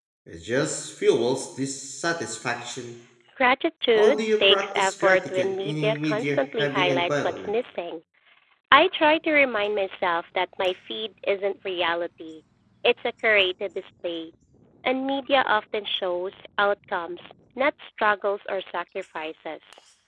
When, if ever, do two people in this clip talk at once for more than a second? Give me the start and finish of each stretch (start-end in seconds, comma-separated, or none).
4.0-7.5